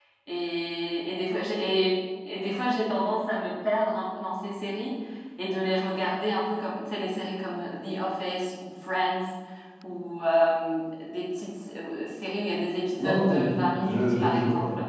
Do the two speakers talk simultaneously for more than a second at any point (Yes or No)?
Yes